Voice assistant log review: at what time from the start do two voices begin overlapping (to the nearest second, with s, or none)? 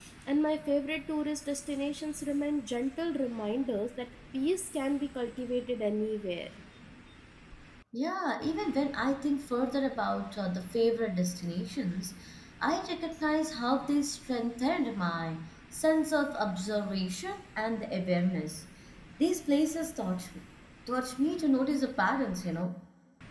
none